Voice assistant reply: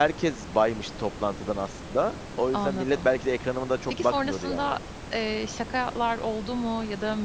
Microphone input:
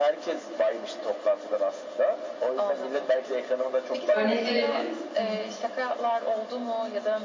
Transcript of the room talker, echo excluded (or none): Örnek verebilir misin?